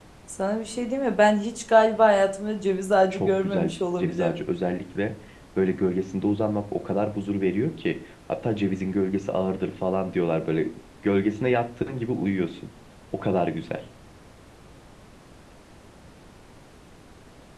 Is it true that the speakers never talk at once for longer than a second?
No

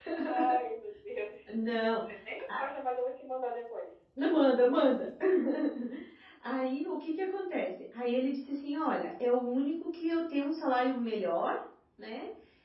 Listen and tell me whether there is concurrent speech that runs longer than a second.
No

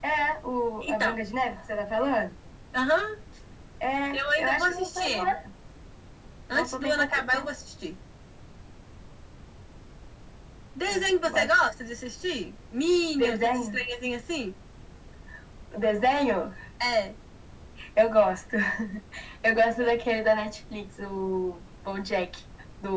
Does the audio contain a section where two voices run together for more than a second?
Yes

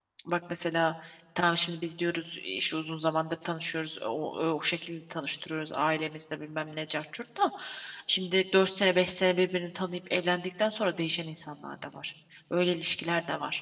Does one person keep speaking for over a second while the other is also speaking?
No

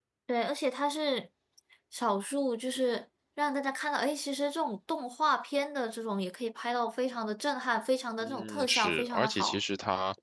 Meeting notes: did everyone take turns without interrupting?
No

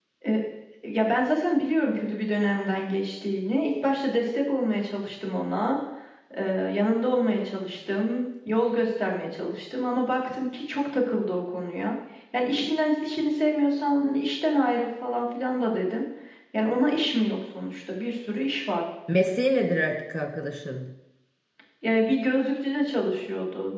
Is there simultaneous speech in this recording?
No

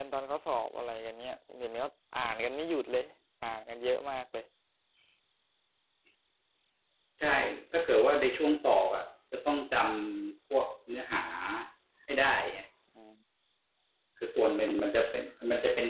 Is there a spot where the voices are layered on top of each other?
No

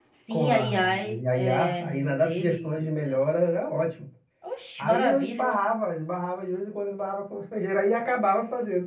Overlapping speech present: Yes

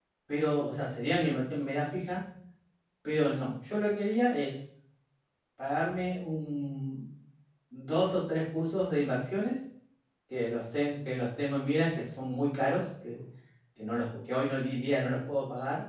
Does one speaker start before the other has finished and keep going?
No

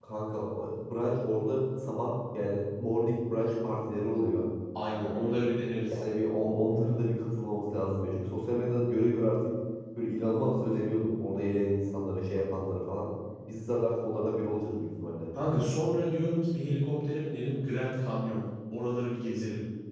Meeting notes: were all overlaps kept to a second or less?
Yes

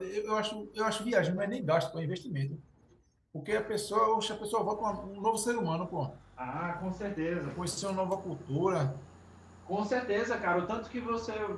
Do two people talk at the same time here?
No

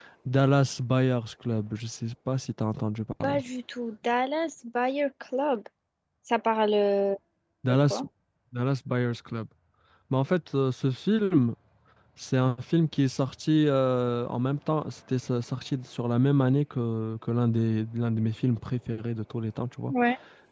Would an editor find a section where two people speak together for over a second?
No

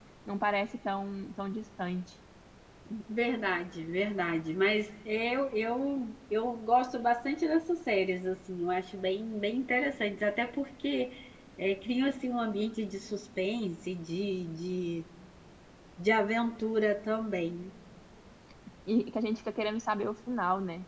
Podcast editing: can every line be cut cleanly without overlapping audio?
Yes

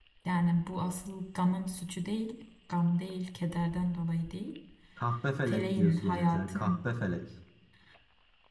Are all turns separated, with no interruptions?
No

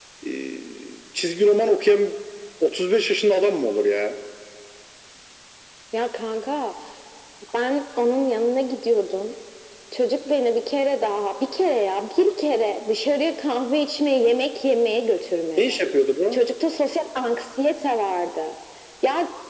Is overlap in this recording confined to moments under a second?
Yes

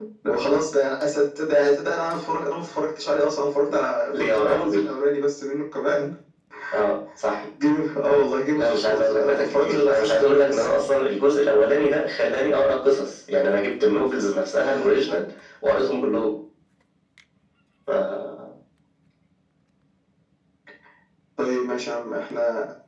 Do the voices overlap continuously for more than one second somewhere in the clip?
Yes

